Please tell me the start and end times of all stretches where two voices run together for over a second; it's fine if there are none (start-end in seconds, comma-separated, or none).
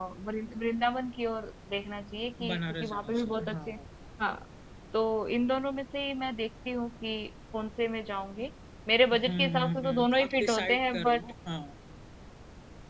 2.5-3.7, 9.1-11.2